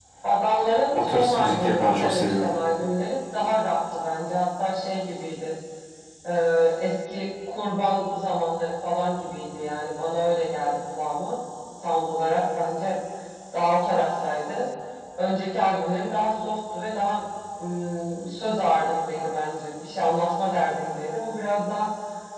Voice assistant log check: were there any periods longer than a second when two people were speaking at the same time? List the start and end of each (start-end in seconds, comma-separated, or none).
1.1-2.5